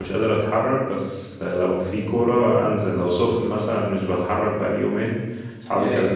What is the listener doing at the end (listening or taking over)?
listening